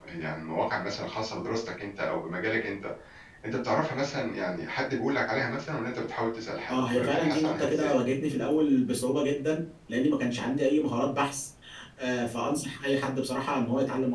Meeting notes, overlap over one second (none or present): present